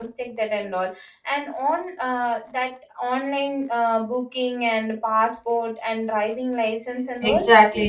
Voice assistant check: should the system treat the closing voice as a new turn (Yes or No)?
Yes